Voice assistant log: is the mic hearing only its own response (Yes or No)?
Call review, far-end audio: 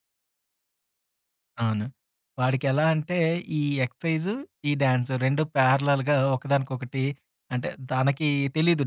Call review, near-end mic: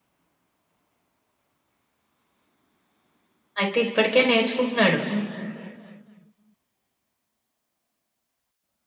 No